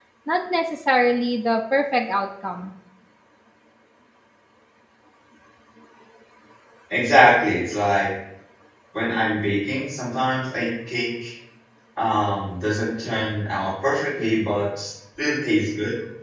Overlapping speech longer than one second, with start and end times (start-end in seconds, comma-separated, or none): none